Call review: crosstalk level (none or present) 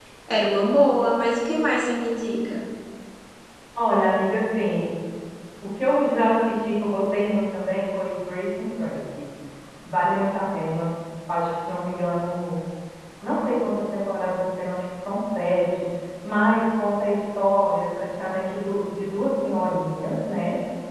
none